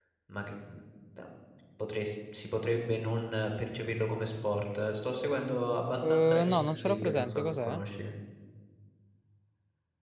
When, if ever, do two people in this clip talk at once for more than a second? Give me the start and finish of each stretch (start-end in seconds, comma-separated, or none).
6.0-7.8